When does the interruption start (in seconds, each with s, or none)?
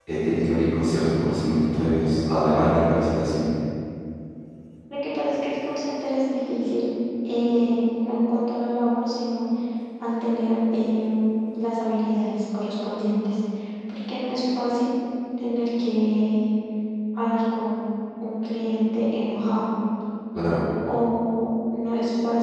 none